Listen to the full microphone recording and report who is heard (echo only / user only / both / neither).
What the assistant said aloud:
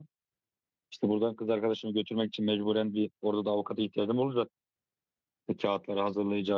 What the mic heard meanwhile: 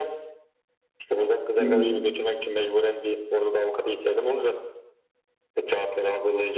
both